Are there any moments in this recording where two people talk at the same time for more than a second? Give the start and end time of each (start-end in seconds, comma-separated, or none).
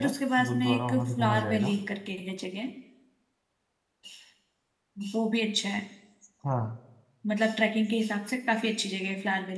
0.5-1.7